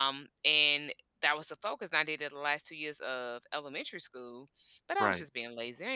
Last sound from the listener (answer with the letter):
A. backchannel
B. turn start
A